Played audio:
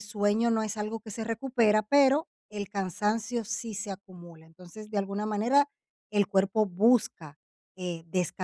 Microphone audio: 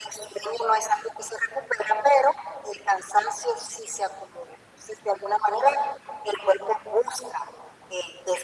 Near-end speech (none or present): none